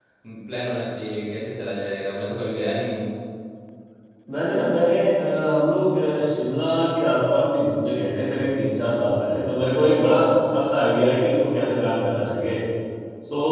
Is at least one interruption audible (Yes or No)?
No